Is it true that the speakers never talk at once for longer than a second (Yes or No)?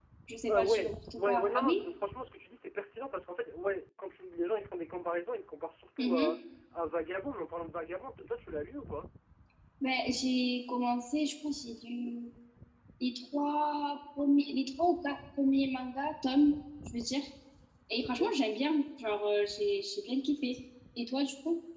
No